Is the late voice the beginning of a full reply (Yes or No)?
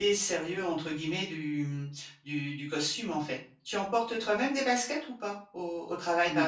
Yes